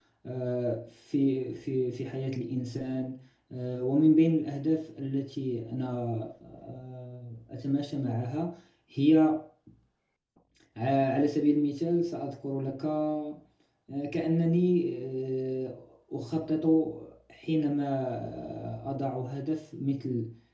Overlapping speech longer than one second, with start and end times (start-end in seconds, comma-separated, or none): none